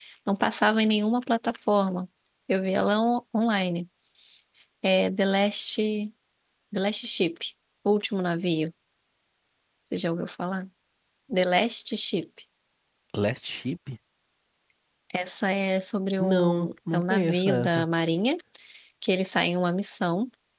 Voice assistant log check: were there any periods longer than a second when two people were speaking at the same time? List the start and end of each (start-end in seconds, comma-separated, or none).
16.2-17.8